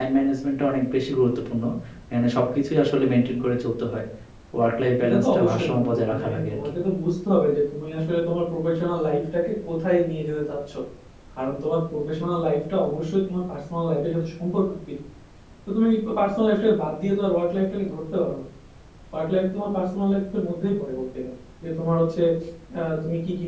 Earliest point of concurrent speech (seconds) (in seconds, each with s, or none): 5.0 s